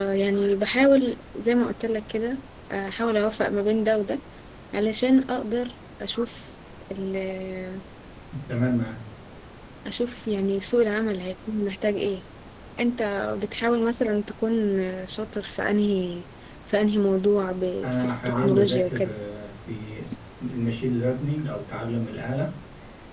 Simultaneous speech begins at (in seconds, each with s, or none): 17.8 s